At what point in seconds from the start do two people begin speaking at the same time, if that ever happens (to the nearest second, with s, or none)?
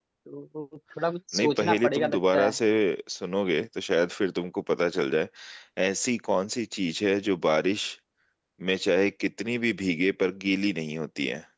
1 s